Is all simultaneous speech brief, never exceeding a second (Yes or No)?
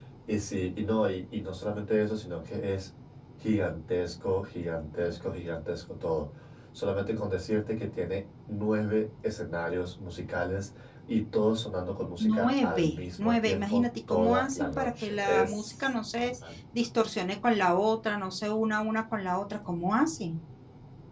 No